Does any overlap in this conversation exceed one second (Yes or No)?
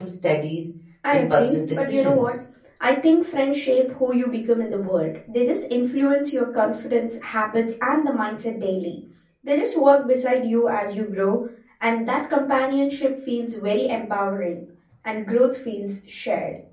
Yes